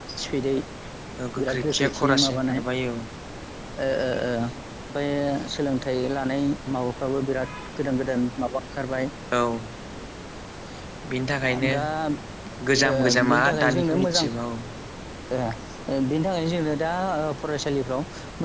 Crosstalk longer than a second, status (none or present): present